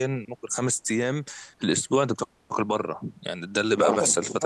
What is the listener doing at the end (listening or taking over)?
taking over